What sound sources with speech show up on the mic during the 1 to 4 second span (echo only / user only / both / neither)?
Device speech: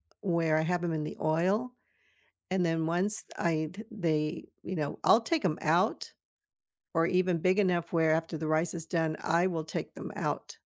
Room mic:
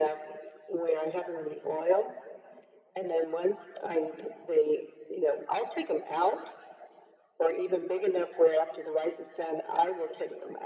echo only